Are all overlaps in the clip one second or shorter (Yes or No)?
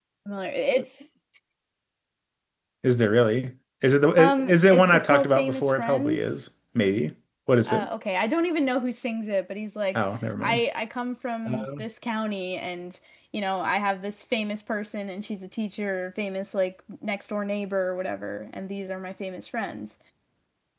No